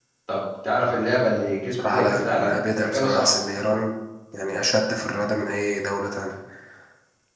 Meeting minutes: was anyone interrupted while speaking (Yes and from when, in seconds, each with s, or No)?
Yes, from 1.7 s